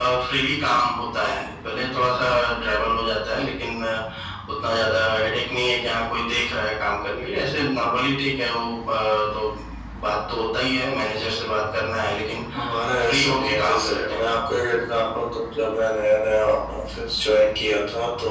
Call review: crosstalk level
present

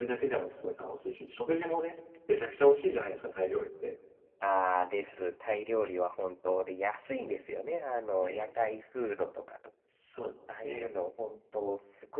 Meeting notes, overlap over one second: none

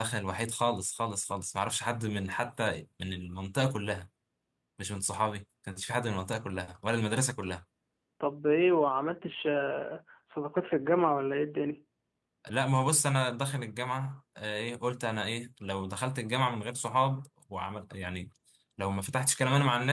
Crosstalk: none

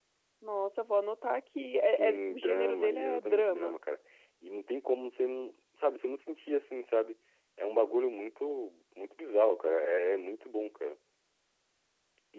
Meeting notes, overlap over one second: present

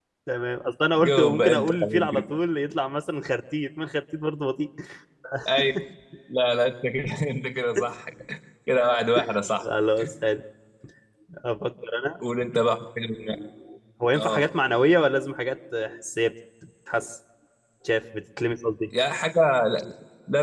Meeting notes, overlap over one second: present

